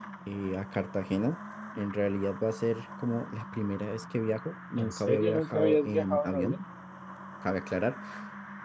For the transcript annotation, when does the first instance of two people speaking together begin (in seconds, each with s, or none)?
4.8 s